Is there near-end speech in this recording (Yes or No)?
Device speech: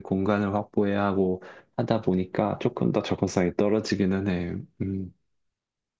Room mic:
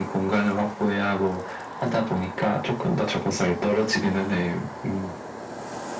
No